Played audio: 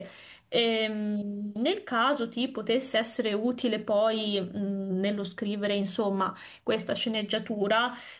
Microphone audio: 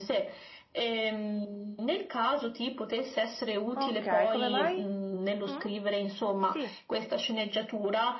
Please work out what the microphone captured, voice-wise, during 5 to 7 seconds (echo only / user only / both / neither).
both